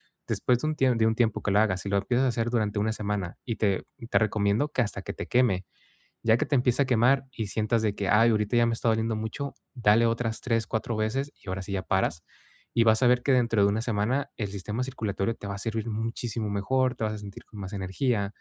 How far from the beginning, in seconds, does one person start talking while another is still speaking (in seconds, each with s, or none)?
none